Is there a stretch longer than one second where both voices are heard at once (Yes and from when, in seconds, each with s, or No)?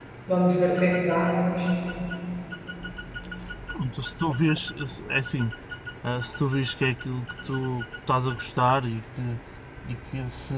No